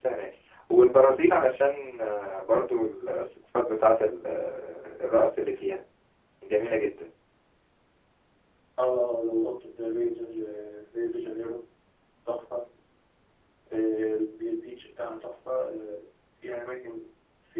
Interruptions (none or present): none